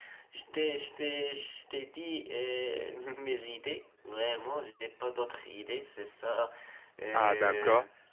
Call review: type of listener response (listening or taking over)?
taking over